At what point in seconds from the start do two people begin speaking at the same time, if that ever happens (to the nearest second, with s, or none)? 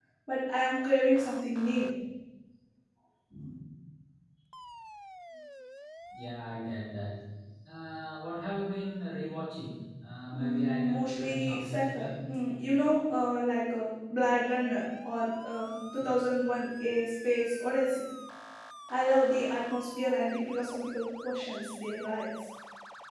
10 s